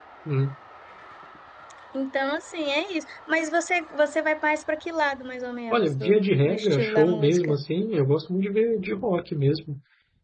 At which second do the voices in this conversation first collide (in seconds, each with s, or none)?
5.7 s